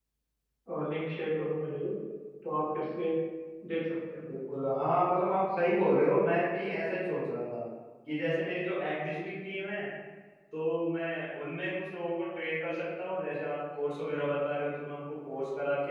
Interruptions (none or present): none